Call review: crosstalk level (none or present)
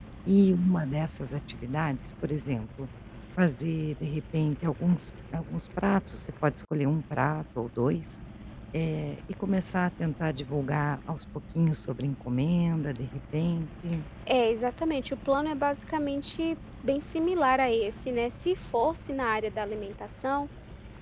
none